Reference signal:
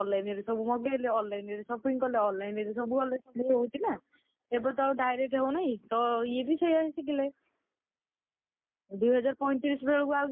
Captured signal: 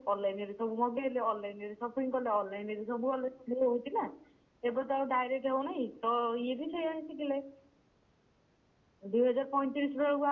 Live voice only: none

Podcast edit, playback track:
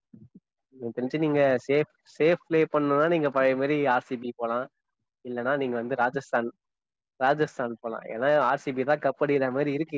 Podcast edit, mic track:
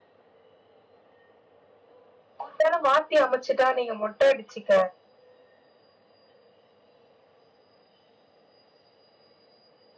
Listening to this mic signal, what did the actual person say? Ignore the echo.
ஒரு வேல மாத்தி அமைச்சுட்டா நீங்க மொட்ட அடிச்சிக்க

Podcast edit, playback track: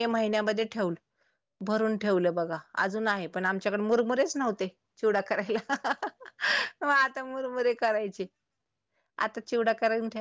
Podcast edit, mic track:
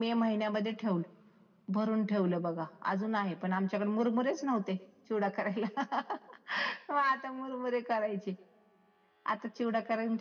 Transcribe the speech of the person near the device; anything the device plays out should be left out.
none

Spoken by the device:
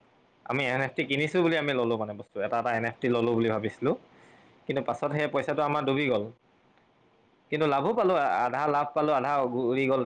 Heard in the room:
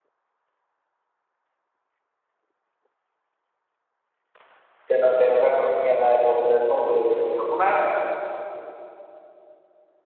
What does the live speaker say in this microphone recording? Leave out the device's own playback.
তেনে তেনেকুৱা ধৰণে সি এটা এপৰ প্লেটফৰ্ম খুলি লৈছিলে আপোনাৰ

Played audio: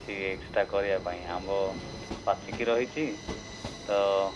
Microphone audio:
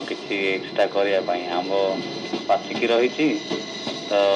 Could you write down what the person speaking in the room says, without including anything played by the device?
none

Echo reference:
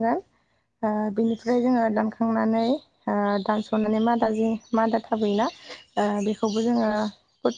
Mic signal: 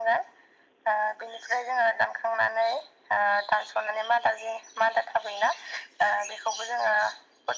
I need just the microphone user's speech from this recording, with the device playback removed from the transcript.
none

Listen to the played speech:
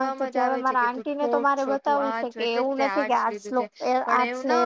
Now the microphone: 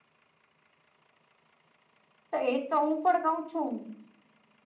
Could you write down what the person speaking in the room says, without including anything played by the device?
તો એ તો હું પણ કઉ છું

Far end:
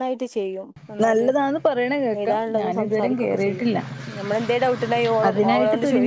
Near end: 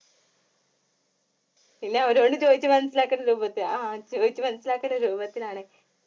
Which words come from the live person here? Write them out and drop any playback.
പിന്നെ അവരോട് ചോയ്ച്ച് മൻസ്സിലാക്കണ്ട രൂപത്തി ആഹ് ചോയ്ച്ചു മനസ്സിലാക്കണ്ട രൂപത്തിലാണേ

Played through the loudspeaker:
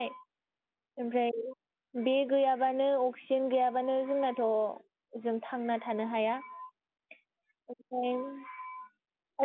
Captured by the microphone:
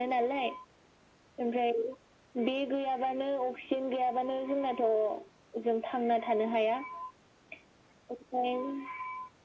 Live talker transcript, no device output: none

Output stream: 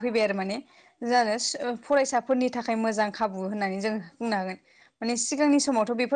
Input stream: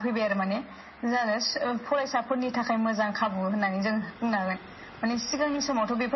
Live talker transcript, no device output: none

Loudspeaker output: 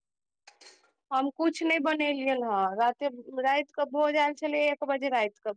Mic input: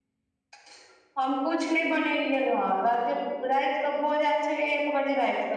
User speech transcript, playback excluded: none

